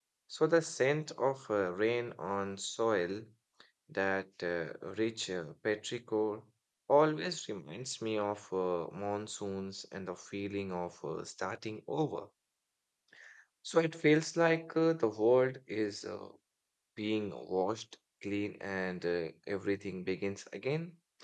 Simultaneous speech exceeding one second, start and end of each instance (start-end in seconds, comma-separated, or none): none